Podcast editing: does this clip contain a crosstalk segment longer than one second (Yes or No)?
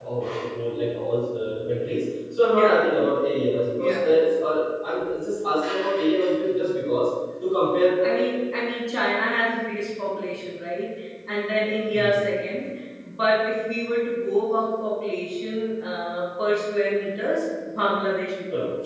No